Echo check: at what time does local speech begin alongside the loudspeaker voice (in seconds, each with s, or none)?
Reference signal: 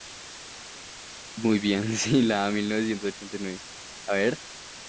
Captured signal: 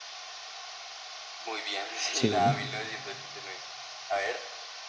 2.1 s